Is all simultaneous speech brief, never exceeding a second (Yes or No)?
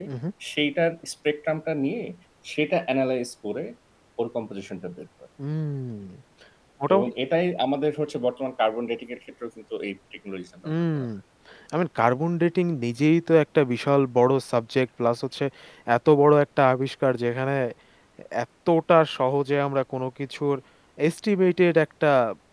Yes